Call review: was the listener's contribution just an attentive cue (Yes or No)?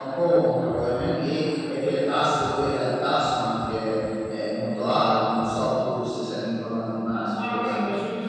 No